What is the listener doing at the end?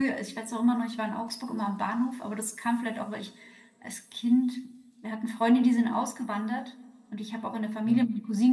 listening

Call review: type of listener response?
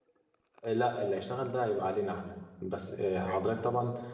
listening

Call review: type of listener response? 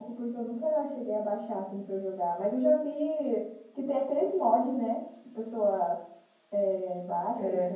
listening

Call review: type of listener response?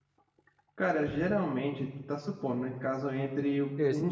listening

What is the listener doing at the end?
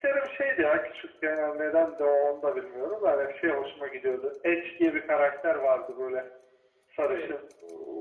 listening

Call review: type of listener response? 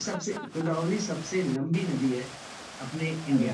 taking over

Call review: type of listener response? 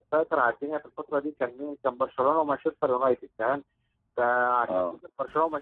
listening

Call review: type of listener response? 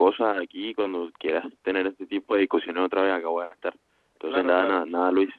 listening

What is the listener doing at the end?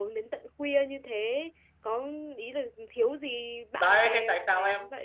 taking over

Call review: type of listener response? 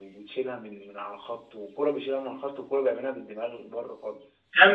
taking over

